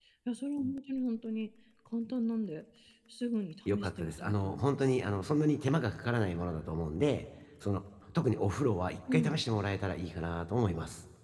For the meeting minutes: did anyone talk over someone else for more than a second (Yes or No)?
Yes